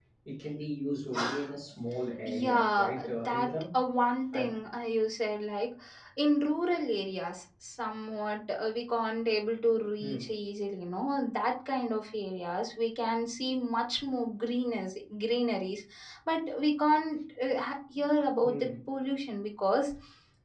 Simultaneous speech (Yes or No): Yes